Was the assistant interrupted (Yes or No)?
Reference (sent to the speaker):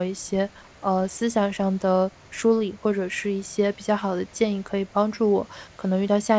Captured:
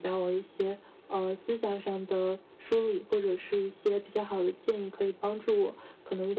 No